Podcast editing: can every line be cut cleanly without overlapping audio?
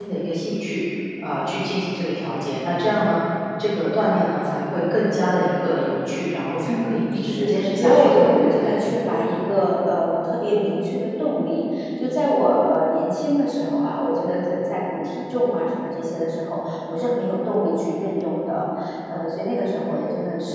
No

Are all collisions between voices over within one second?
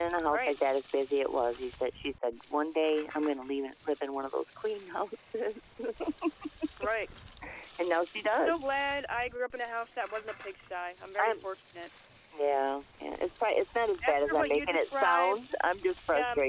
No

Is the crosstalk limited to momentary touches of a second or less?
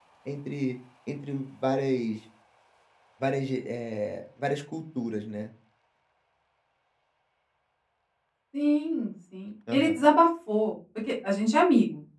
Yes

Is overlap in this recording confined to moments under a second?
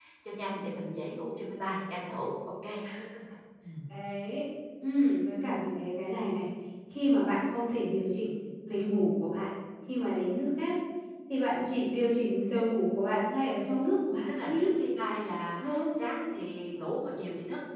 Yes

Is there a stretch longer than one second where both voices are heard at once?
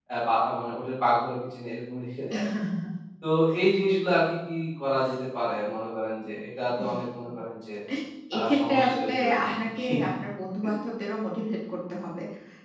Yes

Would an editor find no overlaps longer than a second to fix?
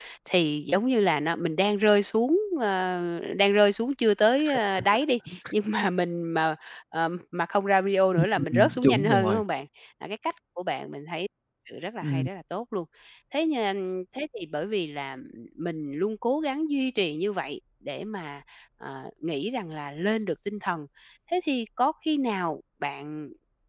No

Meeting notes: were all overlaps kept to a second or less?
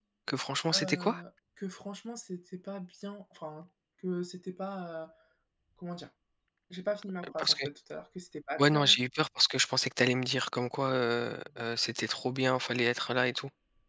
Yes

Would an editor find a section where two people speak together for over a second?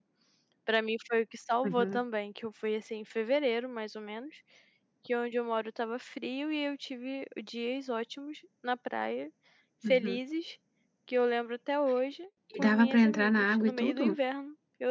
Yes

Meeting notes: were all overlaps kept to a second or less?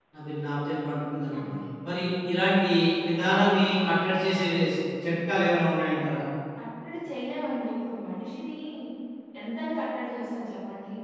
Yes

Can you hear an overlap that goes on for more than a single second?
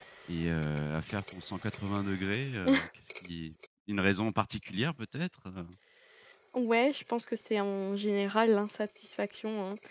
No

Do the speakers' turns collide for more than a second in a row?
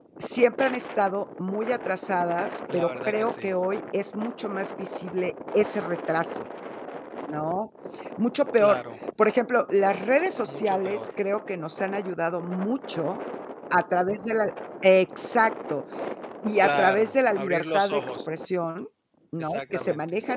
Yes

